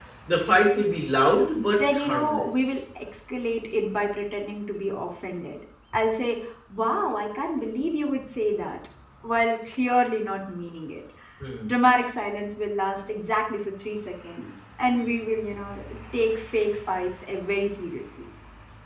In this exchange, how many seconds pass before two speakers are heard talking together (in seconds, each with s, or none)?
1.6 s